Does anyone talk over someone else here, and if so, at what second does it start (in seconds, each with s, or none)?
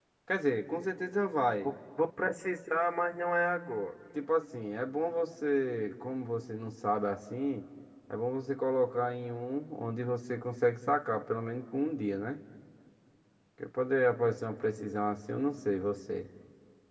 none